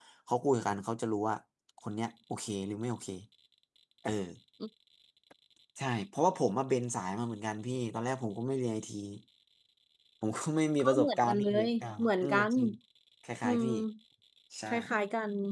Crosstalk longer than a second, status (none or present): present